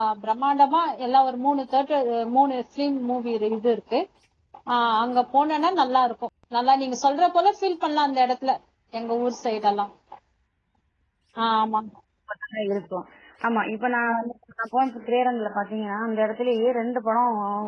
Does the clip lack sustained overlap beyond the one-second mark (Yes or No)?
Yes